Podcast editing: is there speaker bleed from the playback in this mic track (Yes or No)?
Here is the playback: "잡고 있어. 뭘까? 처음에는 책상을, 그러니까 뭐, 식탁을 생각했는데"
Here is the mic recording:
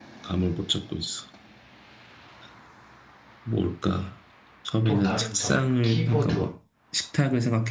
Yes